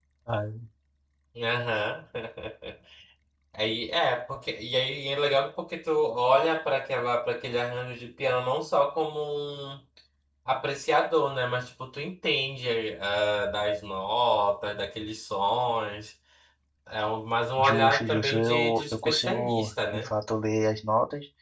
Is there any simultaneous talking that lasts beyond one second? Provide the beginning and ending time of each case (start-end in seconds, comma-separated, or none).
17.6-20.1